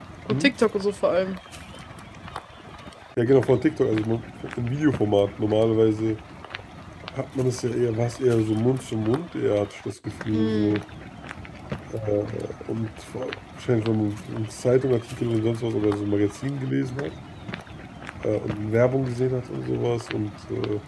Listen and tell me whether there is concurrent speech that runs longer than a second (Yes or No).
No